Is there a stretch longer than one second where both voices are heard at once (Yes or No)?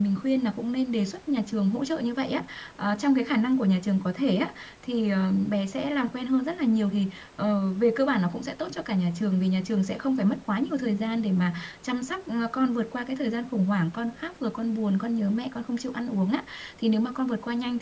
No